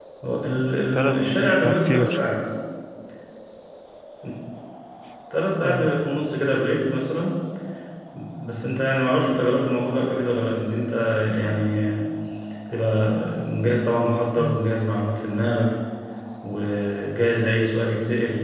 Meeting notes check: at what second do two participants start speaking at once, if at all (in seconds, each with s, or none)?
0.9 s